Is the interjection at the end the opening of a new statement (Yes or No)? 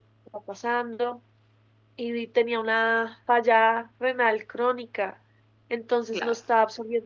No